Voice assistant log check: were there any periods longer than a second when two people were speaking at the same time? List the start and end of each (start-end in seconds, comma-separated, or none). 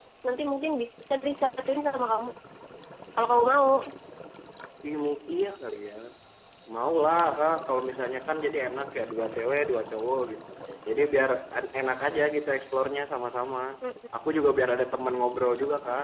none